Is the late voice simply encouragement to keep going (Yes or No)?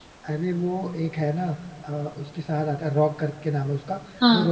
Yes